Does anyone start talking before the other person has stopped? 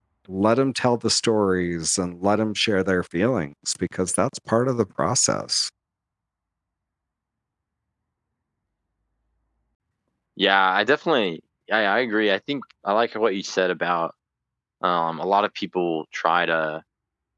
No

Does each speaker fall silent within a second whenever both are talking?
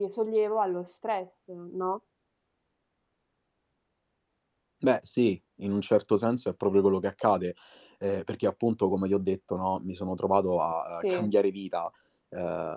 Yes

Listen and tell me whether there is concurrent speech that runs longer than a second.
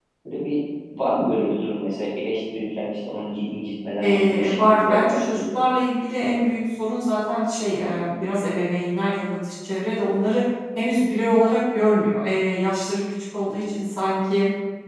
Yes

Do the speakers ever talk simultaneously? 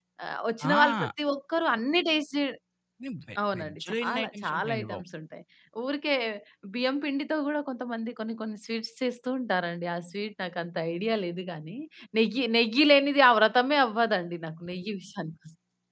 Yes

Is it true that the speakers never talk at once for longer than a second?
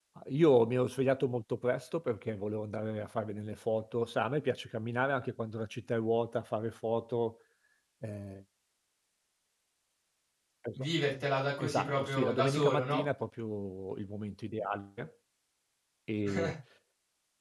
No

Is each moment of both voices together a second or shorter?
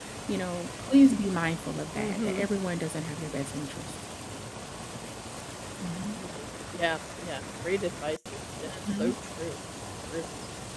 Yes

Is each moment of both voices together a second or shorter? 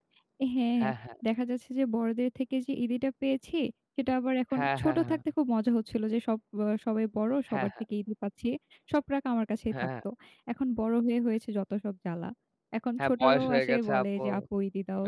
No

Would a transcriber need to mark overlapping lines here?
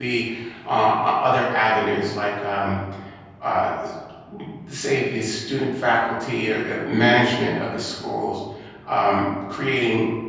No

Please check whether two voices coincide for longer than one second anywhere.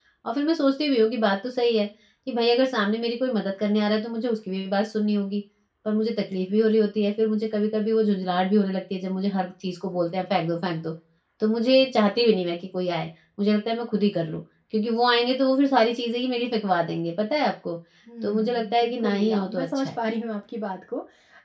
Yes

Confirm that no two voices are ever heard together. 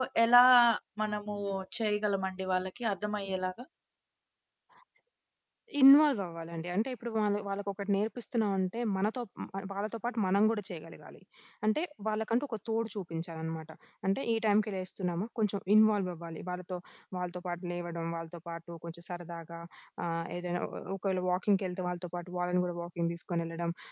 Yes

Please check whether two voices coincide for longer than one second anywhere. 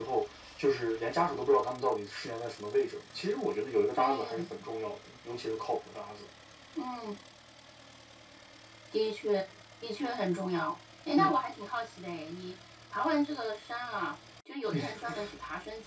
No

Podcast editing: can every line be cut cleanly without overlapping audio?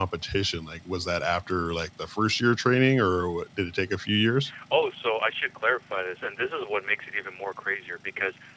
Yes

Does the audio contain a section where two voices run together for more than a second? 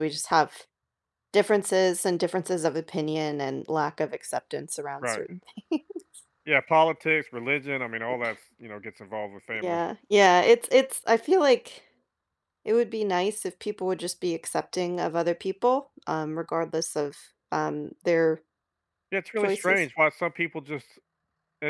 No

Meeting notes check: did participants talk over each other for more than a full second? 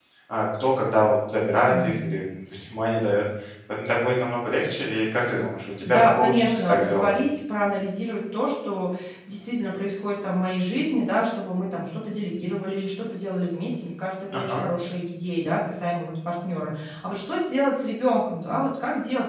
Yes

